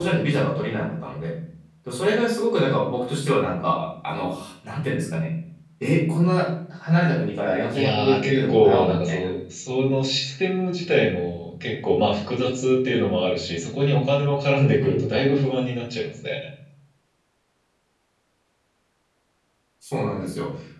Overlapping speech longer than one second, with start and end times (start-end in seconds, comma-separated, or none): 7.7-9.3